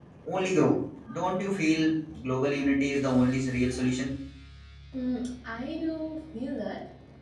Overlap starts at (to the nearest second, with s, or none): none